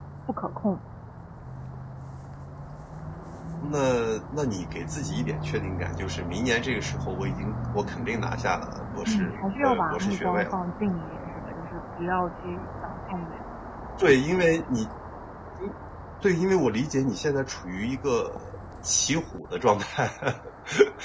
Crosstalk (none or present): present